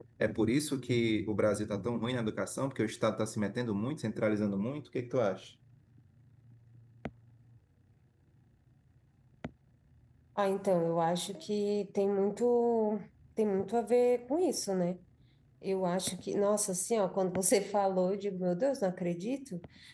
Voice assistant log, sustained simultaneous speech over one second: none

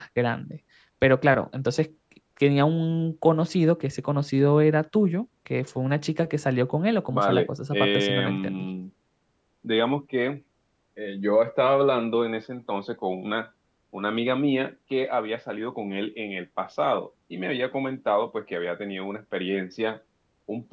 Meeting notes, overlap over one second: present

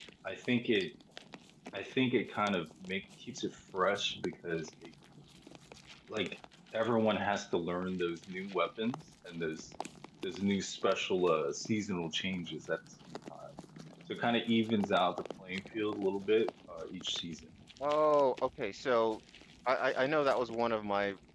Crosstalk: none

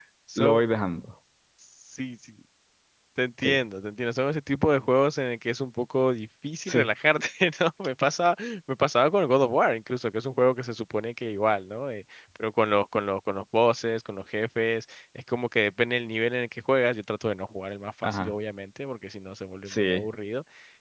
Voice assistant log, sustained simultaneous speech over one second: none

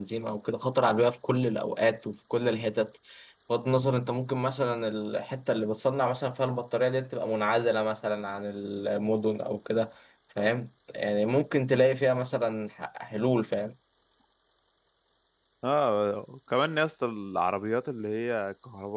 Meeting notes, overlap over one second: none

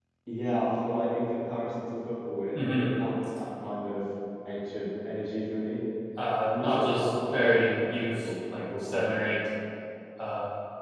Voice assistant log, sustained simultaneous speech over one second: present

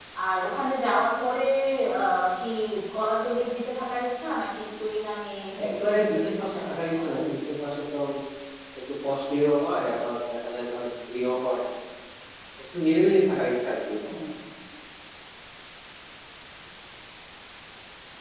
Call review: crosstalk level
present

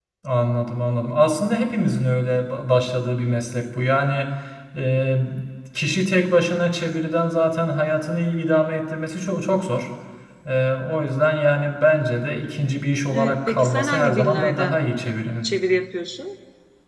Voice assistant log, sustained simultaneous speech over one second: present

